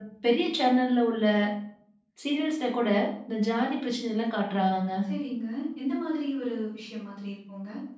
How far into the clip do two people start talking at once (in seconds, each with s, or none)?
none